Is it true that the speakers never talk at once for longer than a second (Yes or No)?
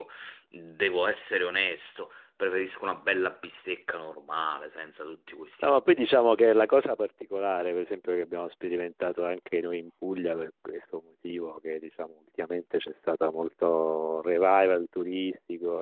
Yes